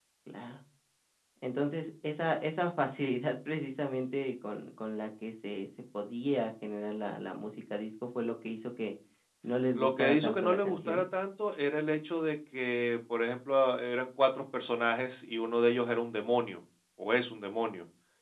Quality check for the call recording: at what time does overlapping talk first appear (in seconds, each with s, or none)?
9.8 s